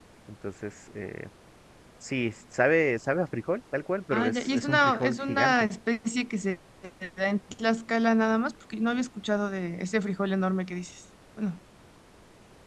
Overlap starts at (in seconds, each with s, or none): 4.1 s